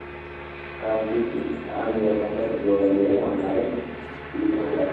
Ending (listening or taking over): listening